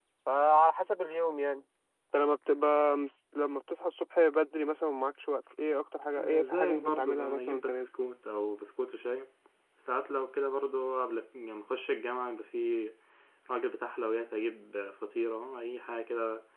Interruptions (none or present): present